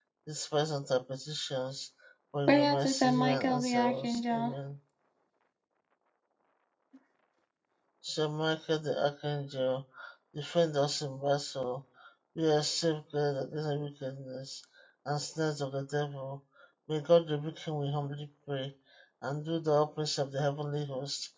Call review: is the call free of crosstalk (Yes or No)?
No